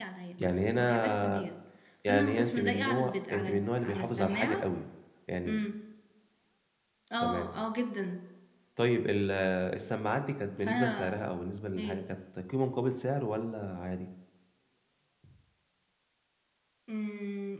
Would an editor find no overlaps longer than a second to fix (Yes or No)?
No